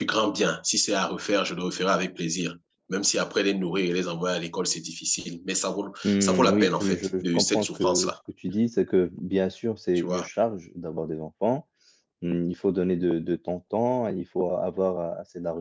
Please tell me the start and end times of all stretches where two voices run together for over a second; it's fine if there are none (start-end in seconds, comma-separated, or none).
6.0-8.1